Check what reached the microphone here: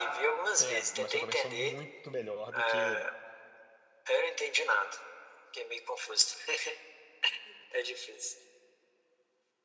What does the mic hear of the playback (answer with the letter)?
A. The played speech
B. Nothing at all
A